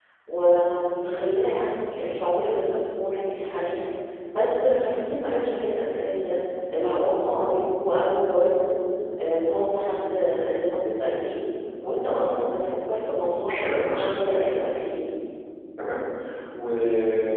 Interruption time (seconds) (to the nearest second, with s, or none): 13 s